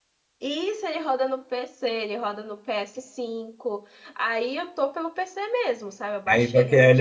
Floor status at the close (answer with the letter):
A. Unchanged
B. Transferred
B